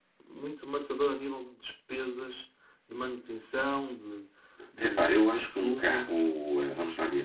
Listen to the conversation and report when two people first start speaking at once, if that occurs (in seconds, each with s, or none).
4.8 s